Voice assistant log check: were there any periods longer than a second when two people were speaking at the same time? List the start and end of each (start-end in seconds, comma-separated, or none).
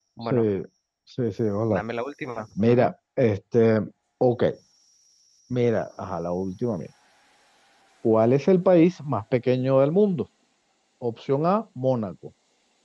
none